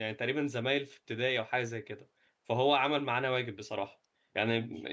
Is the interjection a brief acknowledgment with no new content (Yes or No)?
Yes